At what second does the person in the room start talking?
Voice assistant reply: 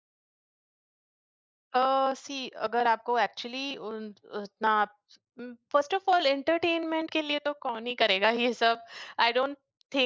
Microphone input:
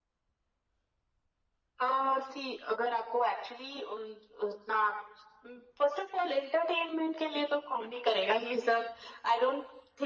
none

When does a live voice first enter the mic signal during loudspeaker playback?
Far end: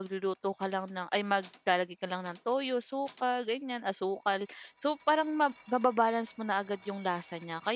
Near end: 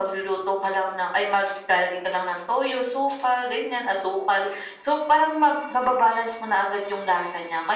none

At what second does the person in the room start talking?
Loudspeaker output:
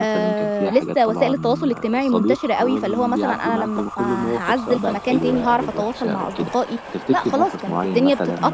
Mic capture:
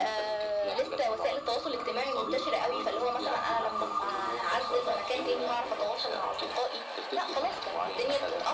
none

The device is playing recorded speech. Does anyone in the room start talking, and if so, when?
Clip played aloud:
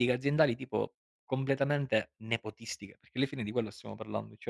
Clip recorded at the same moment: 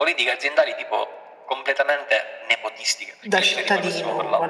3.2 s

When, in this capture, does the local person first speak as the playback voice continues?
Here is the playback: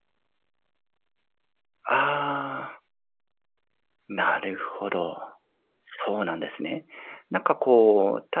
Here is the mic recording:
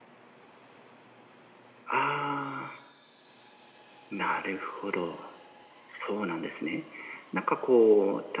none

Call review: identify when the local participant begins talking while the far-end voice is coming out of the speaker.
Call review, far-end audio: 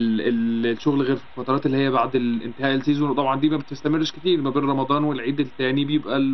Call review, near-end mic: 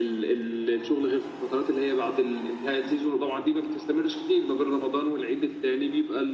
none

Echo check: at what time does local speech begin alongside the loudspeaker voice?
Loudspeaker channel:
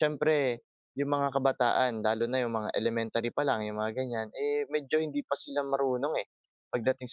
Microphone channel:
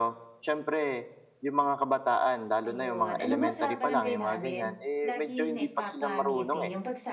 2.7 s

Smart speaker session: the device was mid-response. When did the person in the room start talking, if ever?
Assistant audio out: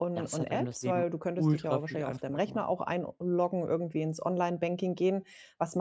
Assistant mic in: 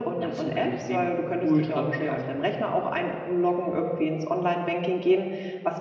none

